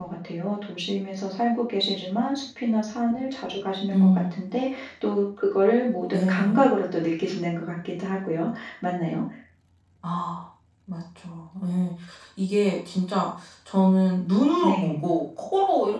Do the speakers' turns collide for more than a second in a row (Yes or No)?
No